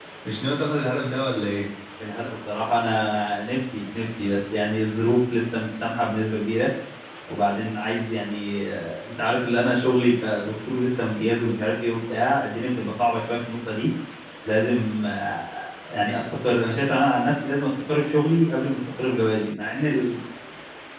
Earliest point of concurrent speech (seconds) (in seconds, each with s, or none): none